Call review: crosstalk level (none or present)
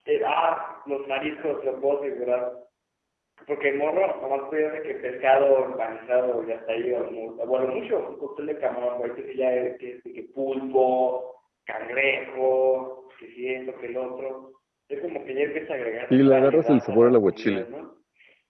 present